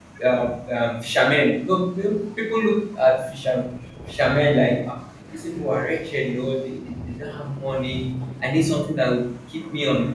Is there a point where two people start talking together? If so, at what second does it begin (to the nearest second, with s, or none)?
none